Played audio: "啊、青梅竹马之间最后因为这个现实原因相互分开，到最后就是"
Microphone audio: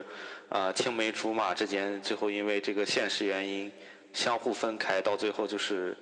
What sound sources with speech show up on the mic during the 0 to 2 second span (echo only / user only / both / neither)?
echo only